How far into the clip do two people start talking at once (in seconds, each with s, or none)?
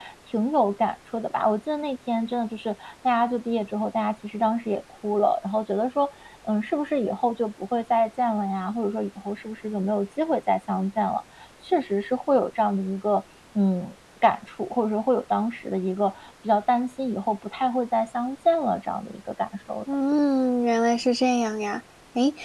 none